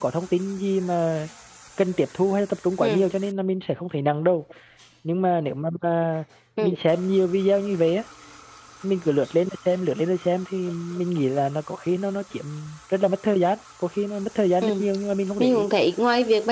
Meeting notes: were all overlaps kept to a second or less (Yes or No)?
Yes